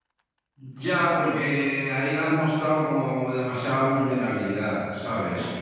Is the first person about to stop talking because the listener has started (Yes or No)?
No